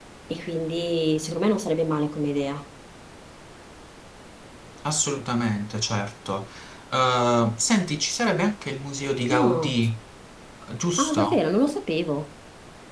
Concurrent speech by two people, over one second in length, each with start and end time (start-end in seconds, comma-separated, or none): none